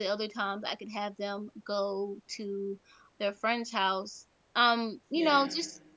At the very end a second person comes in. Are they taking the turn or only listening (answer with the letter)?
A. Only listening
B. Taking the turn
A